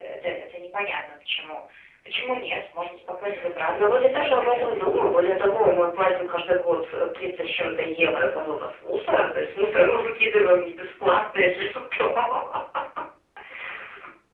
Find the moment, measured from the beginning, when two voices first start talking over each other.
3.7 s

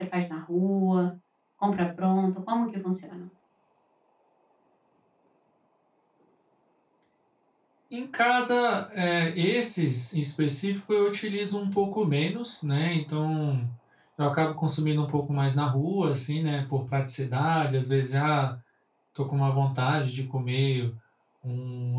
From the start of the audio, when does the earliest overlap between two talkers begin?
none

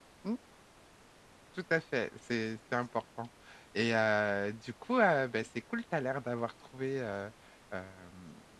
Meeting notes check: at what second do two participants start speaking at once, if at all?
none

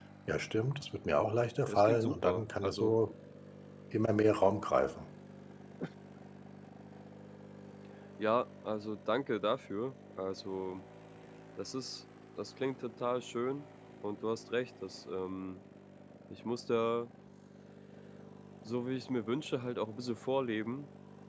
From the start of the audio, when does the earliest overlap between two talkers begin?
1.7 s

